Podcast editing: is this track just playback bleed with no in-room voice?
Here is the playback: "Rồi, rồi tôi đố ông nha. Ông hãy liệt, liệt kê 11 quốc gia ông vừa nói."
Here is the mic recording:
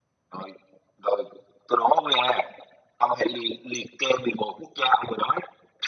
Yes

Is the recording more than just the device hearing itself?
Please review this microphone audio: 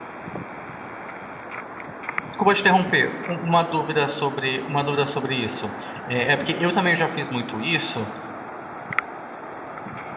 Yes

